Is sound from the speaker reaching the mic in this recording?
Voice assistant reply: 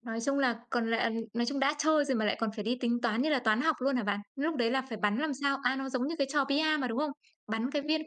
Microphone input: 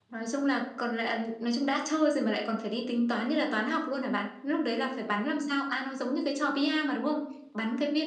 Yes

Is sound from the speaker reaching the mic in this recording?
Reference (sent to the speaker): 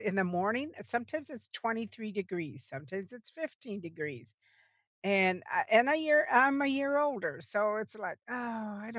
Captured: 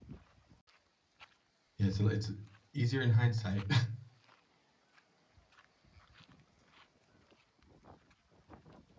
No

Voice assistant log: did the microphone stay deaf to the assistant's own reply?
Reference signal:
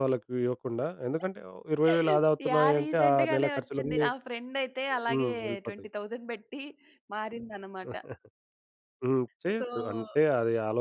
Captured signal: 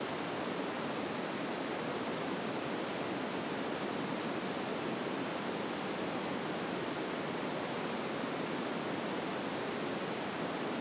Yes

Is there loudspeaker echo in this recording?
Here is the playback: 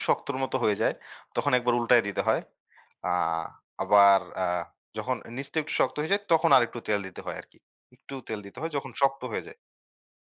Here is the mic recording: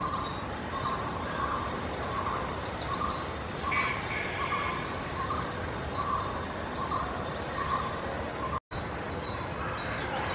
No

